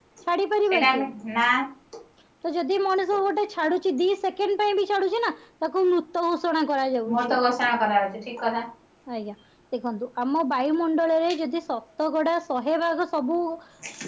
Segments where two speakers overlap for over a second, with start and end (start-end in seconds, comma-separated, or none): none